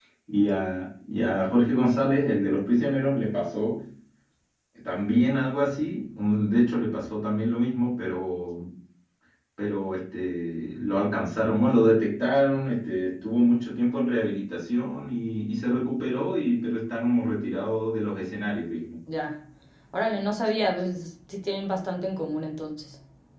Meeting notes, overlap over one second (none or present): none